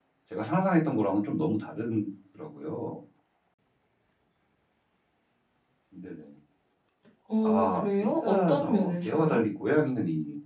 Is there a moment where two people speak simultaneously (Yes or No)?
Yes